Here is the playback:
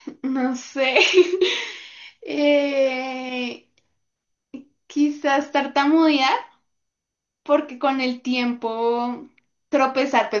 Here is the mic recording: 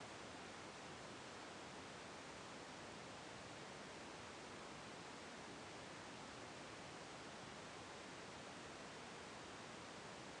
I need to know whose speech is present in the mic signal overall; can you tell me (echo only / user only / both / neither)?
neither